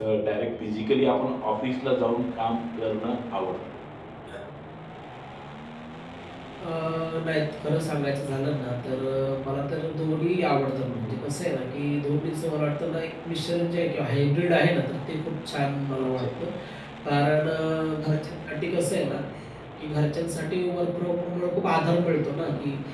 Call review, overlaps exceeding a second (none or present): none